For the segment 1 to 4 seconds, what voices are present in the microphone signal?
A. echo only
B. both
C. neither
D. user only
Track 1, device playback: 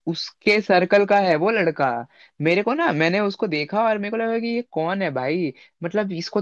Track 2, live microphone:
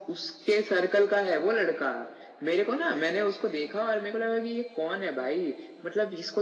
A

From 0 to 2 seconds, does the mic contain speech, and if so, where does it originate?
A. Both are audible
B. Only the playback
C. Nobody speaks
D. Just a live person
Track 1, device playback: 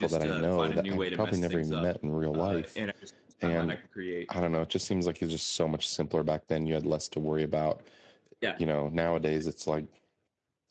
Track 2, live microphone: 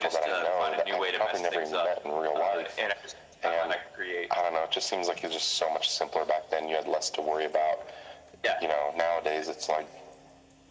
B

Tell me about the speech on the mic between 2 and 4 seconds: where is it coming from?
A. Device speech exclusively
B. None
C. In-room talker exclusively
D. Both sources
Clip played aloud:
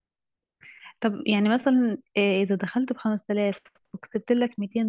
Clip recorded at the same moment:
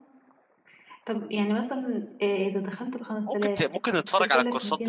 D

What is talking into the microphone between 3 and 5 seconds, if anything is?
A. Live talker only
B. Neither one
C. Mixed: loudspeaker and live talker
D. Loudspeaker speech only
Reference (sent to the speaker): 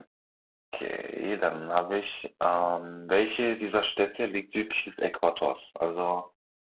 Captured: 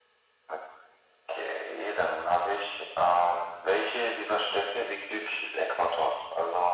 D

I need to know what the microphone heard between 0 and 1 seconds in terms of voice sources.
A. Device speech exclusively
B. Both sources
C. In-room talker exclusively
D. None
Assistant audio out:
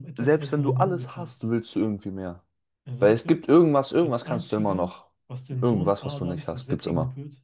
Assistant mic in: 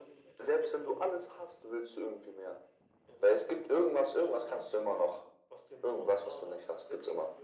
A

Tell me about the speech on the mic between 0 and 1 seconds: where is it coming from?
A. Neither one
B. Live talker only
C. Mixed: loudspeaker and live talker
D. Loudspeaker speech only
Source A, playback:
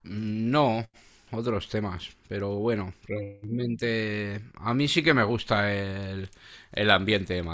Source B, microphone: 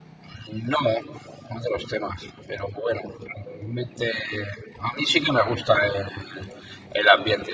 D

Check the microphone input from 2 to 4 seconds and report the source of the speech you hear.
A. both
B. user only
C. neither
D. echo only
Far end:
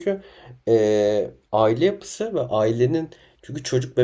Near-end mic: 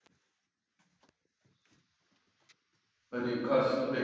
B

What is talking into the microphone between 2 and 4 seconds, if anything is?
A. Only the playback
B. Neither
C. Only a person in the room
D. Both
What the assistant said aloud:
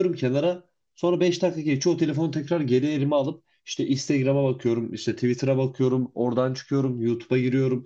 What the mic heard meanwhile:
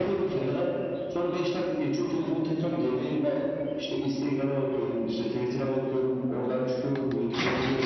A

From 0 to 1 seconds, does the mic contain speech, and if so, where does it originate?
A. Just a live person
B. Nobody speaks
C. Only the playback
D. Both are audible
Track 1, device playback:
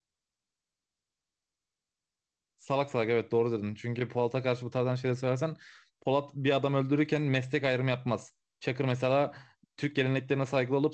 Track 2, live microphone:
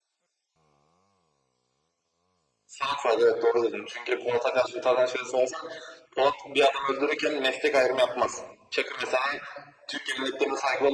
B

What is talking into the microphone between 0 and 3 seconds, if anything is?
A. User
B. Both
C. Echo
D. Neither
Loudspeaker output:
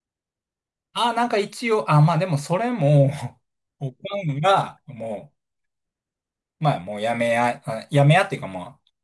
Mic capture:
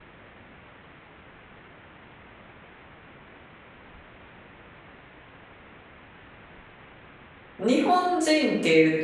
D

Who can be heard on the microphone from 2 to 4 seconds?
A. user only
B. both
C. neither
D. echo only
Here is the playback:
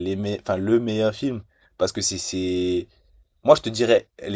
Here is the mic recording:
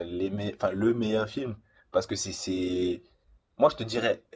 D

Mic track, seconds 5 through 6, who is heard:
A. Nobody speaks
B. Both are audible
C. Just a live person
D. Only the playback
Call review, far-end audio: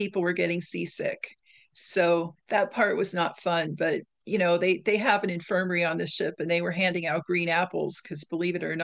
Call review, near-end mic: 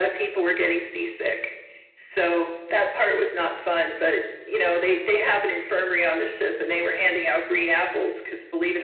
D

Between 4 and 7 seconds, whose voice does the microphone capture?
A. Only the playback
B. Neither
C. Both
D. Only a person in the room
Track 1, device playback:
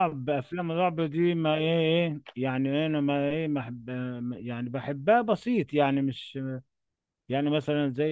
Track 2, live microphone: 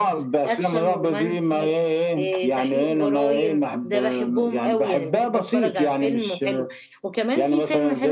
C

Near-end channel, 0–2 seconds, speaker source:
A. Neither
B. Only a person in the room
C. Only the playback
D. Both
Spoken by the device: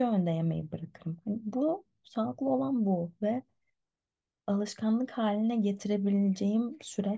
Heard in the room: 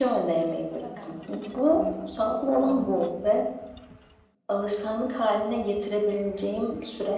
D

